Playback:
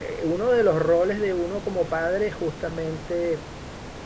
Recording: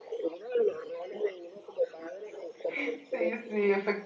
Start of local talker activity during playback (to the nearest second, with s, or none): 3 s